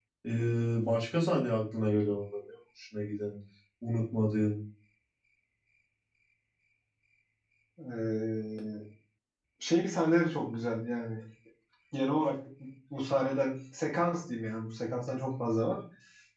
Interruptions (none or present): none